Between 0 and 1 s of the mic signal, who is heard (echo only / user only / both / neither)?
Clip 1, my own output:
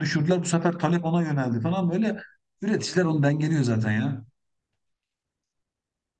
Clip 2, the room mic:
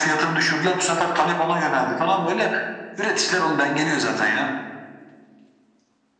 echo only